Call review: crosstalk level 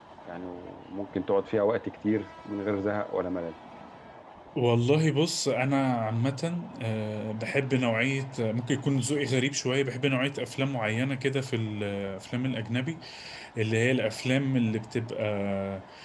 none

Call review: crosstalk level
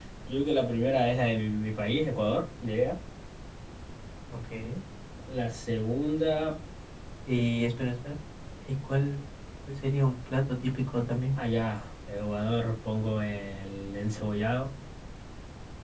none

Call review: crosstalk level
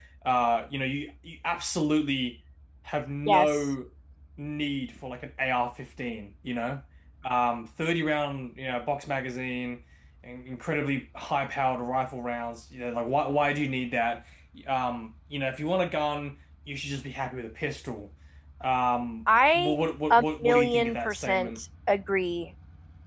present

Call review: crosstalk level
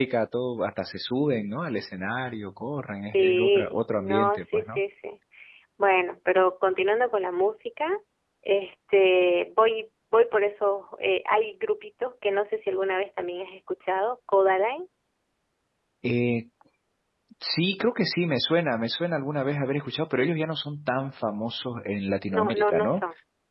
present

